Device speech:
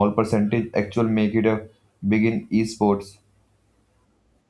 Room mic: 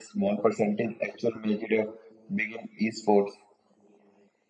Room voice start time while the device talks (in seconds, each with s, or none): none